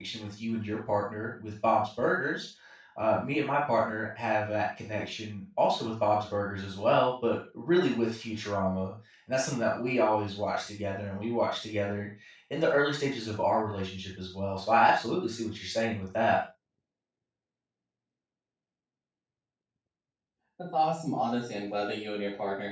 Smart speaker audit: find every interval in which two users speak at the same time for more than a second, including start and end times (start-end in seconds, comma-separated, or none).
none